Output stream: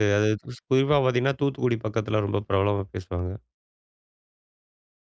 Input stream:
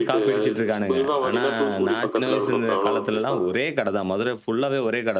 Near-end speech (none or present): present